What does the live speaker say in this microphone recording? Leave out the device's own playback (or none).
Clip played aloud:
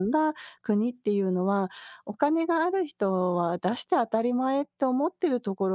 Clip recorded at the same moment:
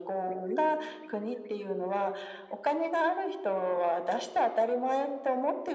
none